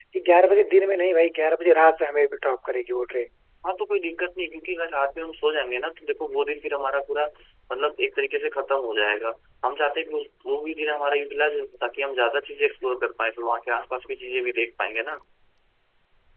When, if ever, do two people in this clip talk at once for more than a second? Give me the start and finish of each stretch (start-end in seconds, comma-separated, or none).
none